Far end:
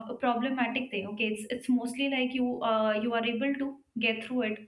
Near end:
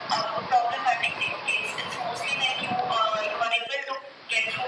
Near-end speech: none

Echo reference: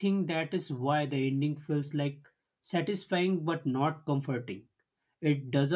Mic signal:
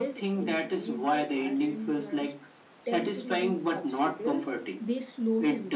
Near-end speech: present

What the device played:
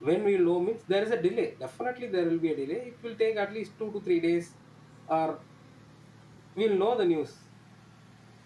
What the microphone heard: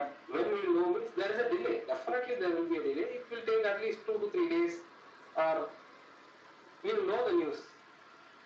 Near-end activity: none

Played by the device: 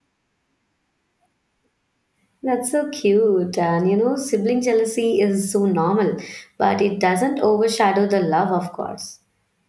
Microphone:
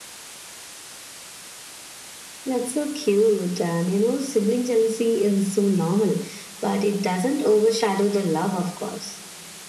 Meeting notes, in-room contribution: none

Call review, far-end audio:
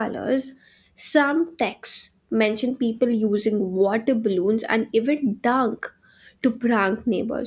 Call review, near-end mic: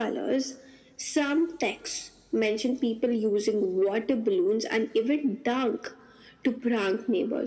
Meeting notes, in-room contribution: none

